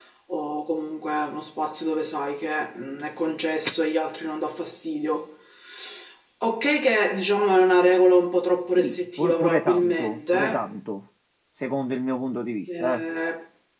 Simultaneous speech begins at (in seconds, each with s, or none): 8.7 s